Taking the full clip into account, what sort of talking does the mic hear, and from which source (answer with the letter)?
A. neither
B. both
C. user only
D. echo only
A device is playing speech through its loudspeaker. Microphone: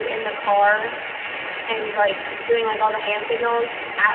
D